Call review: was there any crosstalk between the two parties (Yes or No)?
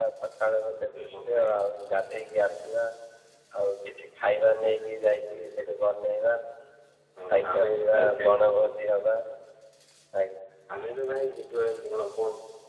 Yes